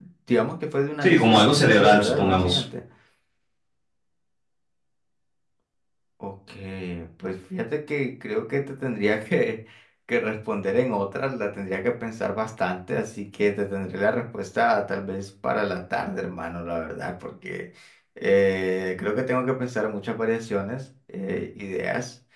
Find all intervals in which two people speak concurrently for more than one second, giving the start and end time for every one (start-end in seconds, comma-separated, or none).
1.0-2.6